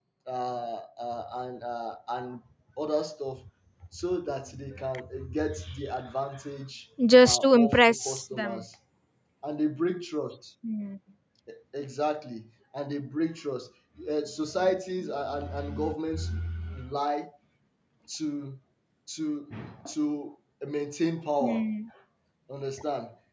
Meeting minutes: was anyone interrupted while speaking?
Yes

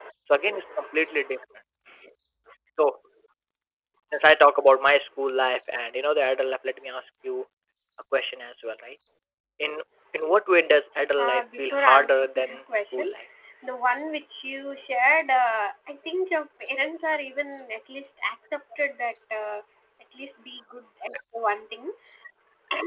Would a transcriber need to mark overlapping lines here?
Yes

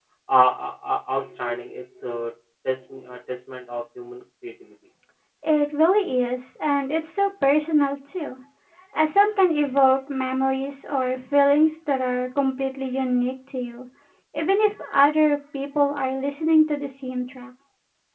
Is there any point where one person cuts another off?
No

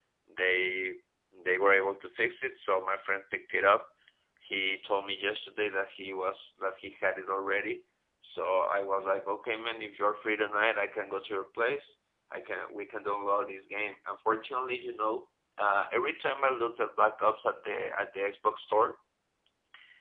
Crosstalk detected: No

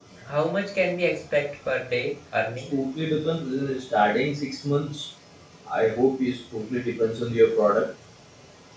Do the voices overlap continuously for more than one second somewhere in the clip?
No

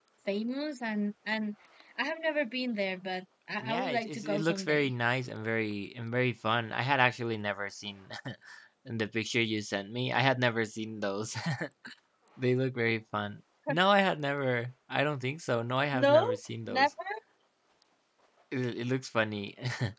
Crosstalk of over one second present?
Yes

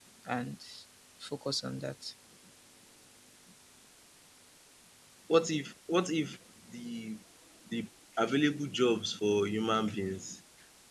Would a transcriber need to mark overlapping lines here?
No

